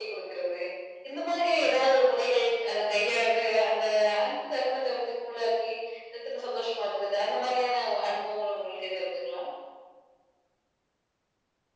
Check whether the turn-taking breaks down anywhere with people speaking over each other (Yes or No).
No